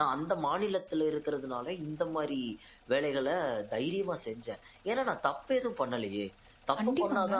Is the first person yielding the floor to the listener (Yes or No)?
No